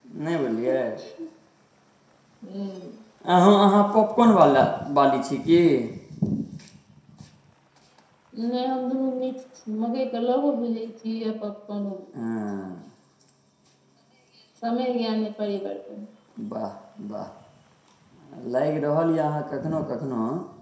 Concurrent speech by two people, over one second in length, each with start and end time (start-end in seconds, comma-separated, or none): none